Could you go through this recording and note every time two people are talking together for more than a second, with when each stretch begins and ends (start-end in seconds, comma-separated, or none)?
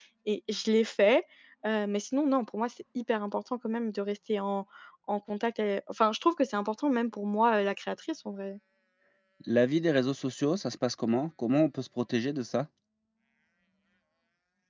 none